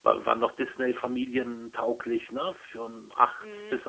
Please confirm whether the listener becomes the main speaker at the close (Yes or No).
Yes